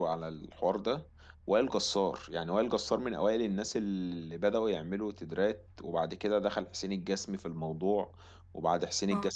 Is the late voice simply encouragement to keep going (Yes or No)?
Yes